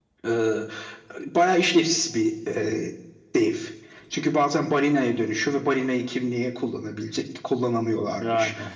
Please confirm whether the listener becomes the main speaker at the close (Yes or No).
No